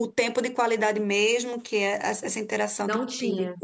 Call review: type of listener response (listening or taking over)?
listening